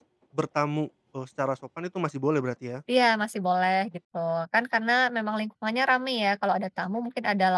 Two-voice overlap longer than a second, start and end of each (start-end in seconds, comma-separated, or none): none